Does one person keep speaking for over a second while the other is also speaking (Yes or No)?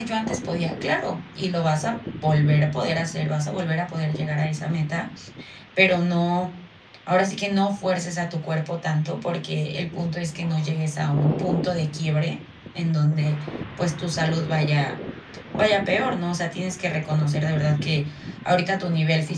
No